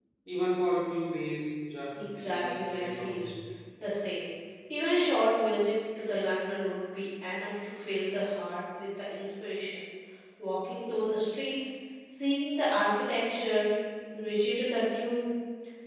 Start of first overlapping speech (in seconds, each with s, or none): 1.9 s